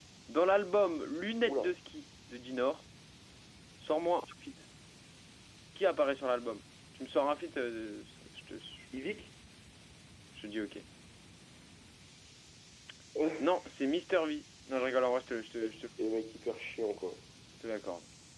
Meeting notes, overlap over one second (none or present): none